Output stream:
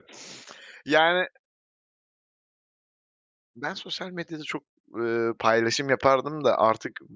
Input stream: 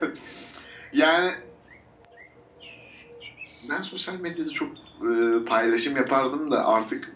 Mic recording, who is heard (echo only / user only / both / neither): echo only